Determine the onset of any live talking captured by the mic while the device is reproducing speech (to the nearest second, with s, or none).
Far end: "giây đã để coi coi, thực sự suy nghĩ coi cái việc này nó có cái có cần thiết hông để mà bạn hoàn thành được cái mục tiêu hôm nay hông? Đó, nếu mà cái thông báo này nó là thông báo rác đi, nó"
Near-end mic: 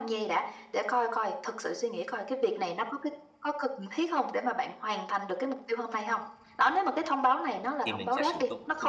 8 s